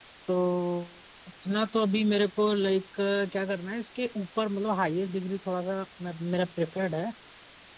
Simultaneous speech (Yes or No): No